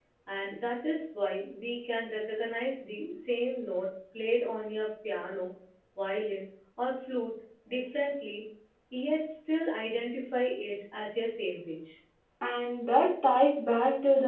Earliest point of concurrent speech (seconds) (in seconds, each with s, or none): none